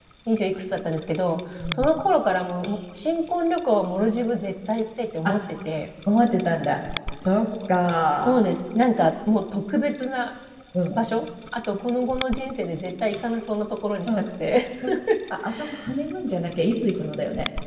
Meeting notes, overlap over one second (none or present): none